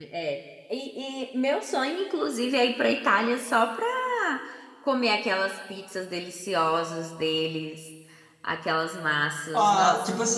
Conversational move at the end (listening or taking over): taking over